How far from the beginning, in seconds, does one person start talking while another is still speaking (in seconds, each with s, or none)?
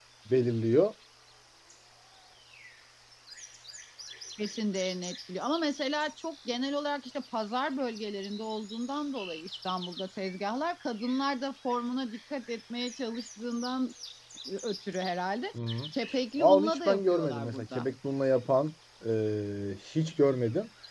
16.4 s